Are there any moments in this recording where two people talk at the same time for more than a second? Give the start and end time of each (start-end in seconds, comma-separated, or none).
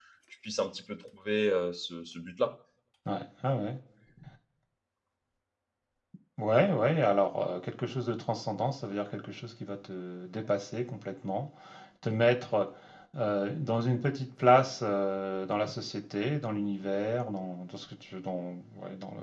none